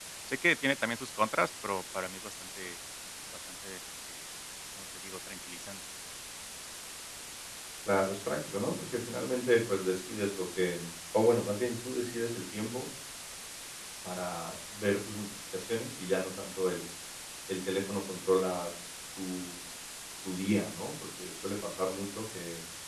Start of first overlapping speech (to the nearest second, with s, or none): none